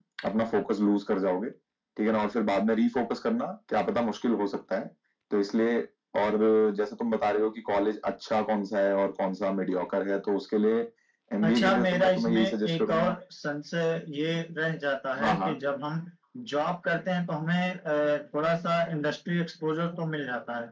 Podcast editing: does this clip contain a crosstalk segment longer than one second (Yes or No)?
Yes